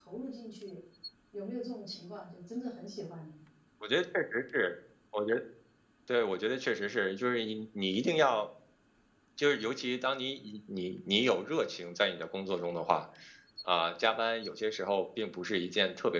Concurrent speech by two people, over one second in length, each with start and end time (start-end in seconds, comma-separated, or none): none